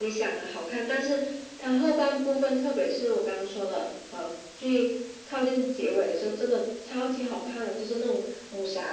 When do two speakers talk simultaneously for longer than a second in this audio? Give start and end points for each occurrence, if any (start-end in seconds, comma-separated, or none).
none